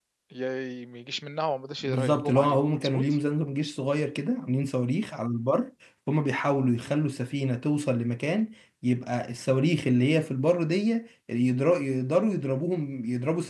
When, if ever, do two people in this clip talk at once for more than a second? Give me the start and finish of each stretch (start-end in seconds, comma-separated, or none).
1.8-3.0